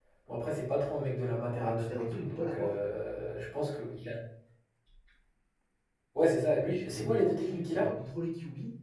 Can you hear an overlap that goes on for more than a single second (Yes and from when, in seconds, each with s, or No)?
Yes, from 1.5 s